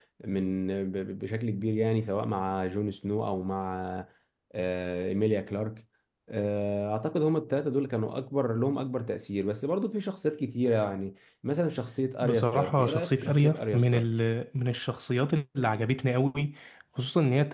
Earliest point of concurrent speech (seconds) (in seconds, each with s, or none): 12.2 s